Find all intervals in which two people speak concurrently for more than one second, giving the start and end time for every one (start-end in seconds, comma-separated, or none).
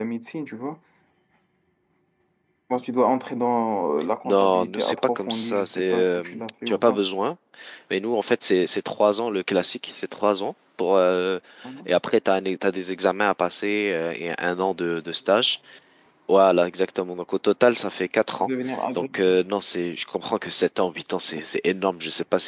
4.2-6.2